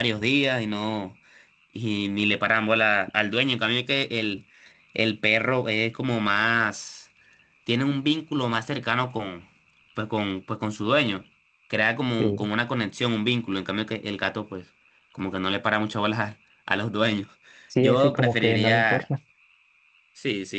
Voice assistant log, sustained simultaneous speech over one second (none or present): present